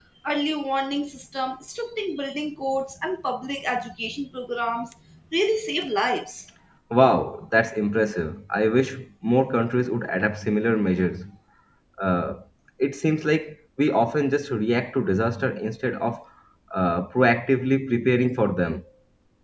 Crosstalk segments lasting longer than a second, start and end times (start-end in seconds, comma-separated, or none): none